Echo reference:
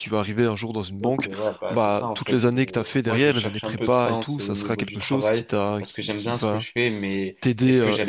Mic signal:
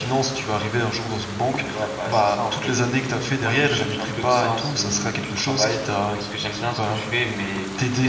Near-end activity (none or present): none